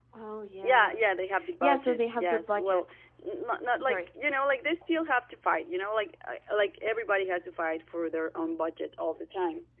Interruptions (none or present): present